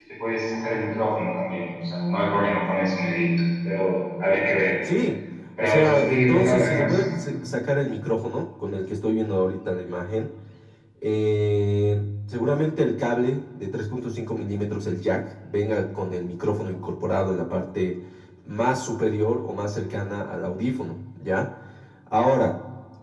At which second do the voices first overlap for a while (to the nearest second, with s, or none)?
6 s